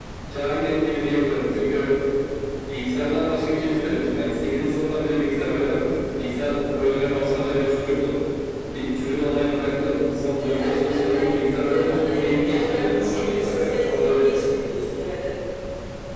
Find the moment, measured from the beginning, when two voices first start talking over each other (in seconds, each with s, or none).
10.4 s